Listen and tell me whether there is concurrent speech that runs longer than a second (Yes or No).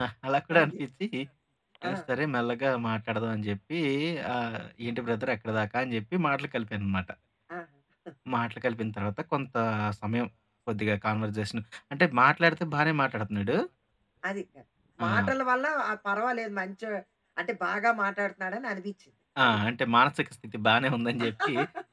No